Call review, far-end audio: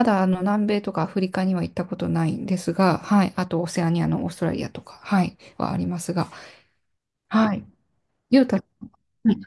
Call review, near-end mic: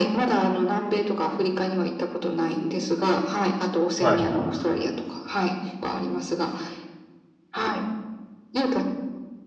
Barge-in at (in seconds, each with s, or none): 4.0 s